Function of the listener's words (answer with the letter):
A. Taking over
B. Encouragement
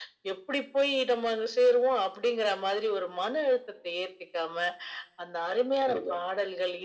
B